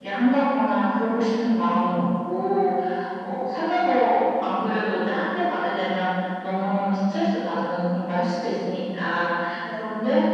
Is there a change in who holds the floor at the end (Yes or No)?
No